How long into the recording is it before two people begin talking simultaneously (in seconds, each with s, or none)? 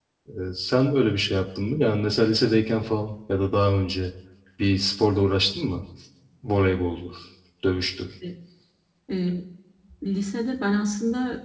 none